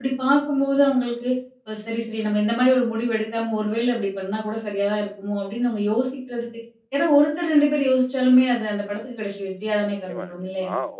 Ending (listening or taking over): taking over